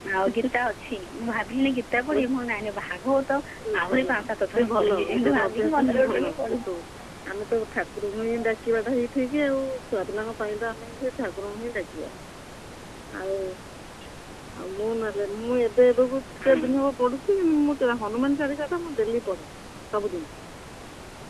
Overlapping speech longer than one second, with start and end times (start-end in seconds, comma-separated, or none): 4.6-6.6